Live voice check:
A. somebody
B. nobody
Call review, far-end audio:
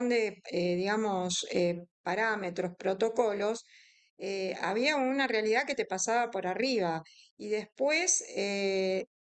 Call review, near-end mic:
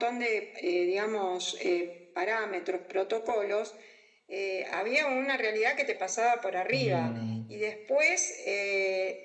A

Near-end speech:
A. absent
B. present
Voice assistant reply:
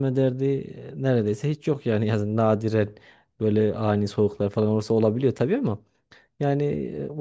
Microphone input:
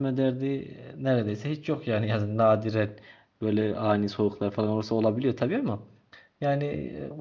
A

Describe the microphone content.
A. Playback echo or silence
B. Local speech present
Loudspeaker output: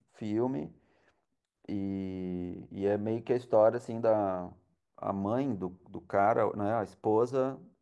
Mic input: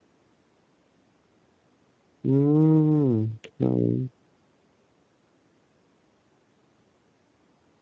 B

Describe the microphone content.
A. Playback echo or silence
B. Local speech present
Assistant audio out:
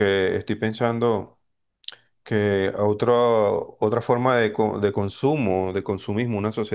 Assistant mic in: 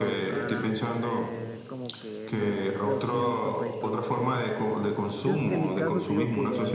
B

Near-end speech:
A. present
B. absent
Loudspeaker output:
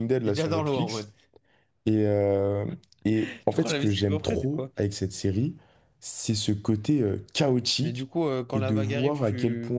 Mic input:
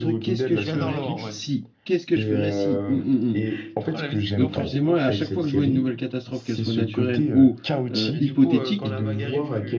A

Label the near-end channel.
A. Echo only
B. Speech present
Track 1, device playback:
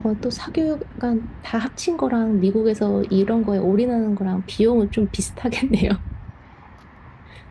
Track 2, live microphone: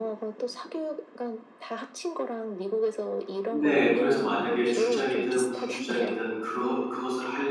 B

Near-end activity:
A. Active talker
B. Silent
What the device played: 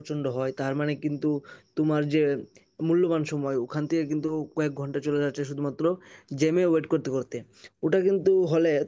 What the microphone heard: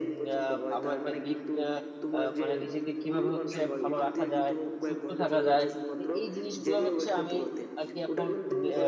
A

